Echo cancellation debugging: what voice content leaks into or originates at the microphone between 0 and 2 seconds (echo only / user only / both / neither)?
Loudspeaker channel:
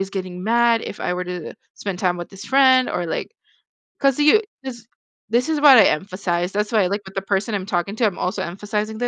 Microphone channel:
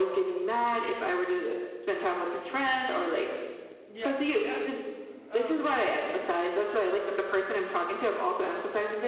echo only